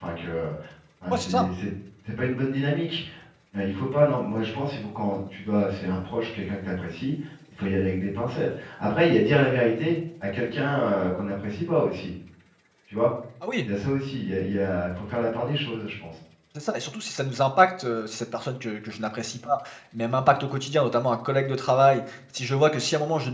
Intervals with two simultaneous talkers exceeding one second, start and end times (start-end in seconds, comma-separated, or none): none